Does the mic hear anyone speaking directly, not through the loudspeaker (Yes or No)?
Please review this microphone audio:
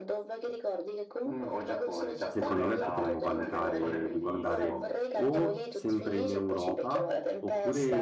Yes